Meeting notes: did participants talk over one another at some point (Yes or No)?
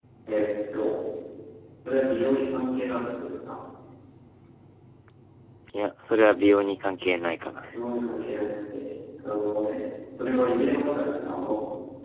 No